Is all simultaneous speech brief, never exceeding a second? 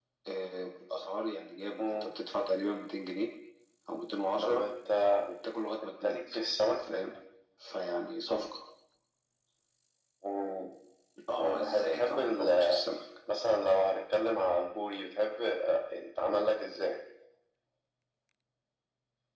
No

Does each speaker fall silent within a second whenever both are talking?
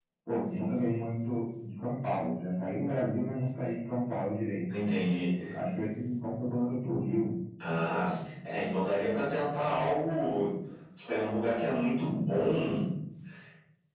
Yes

